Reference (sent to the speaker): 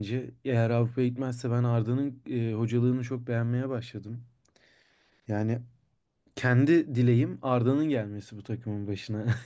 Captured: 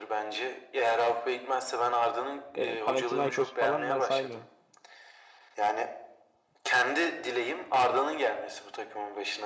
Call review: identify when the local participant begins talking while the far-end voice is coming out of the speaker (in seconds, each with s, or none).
2.5 s